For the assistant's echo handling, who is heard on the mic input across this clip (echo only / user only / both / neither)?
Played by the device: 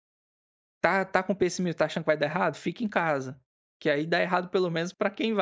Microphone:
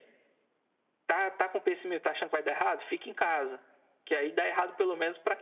echo only